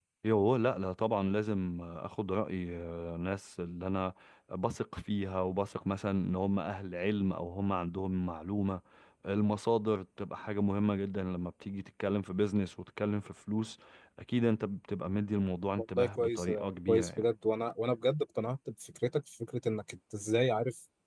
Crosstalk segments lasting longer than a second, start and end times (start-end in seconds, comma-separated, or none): 15.8-17.2